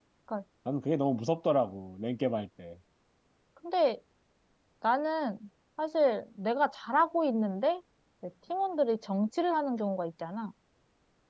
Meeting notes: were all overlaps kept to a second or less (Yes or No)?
Yes